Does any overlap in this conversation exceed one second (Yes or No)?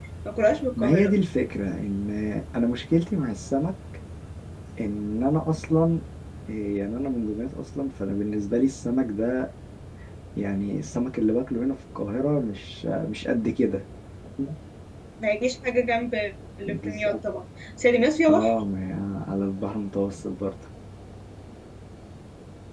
No